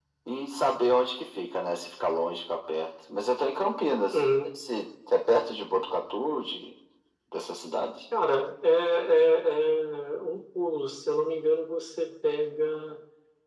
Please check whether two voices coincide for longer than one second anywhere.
No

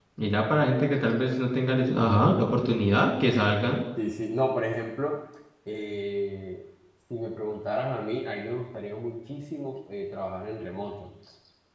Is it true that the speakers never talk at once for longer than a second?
Yes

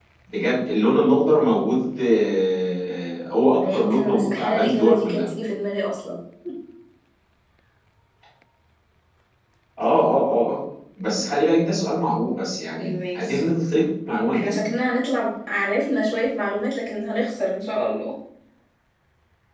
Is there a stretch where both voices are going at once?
Yes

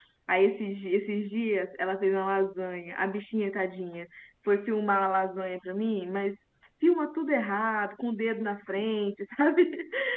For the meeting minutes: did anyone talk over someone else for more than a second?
No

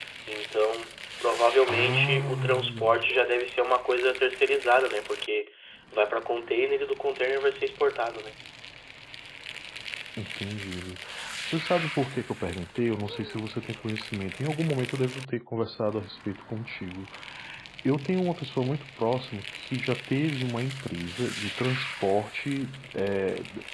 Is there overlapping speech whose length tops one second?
Yes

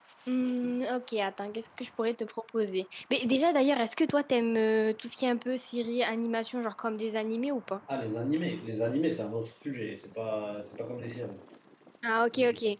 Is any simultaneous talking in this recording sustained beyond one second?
No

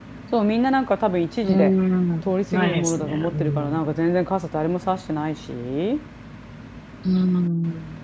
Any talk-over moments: Yes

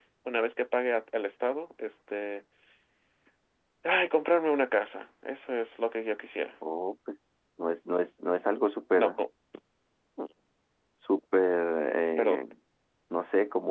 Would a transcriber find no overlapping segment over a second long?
Yes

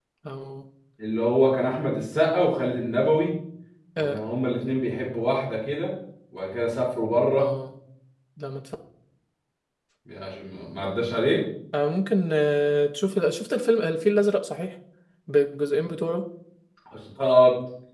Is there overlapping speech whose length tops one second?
No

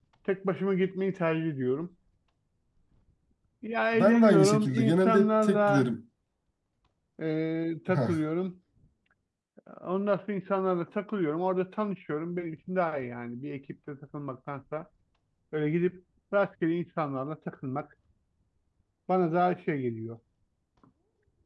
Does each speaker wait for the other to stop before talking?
No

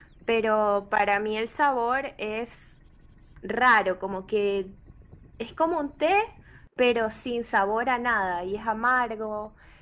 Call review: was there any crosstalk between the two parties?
No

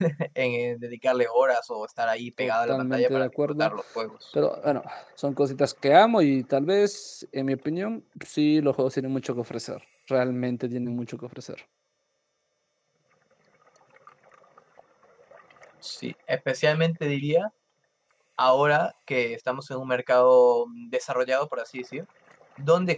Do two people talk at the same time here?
Yes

